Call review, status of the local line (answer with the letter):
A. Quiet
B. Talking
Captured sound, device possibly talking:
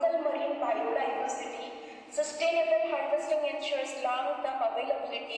A